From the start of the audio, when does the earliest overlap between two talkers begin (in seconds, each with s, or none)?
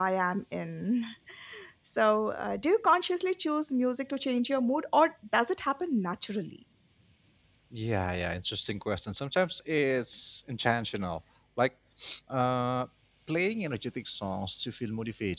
none